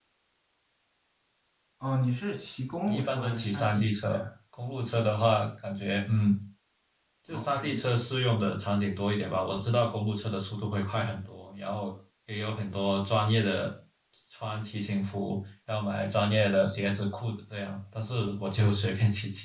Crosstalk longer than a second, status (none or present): present